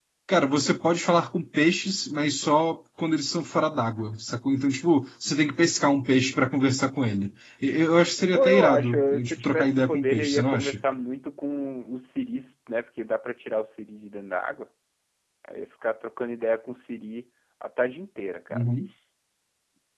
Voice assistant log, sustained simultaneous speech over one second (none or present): present